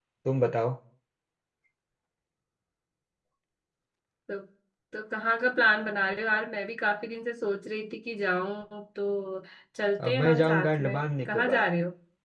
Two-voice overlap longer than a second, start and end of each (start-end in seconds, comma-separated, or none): 10.0-11.6